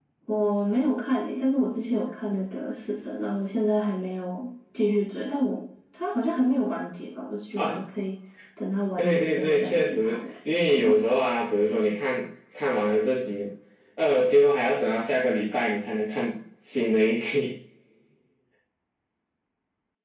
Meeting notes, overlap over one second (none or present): present